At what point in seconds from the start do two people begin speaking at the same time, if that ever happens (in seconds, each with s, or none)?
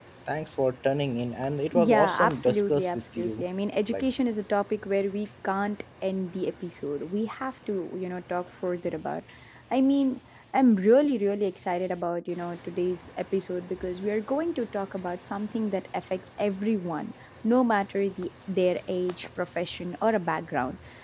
1.7 s